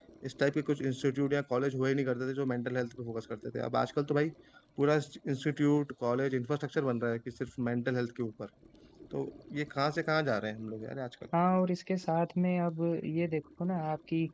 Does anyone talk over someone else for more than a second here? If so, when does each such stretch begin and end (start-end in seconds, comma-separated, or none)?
none